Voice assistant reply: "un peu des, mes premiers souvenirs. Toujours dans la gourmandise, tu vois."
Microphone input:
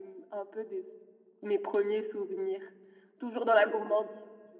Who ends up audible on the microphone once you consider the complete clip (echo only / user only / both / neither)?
echo only